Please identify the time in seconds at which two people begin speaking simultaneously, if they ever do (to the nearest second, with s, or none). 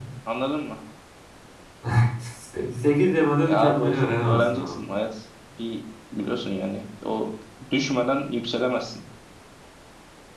3 s